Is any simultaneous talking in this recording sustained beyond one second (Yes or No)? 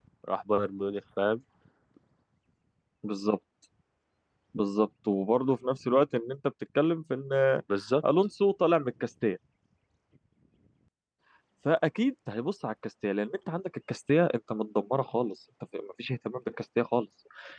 No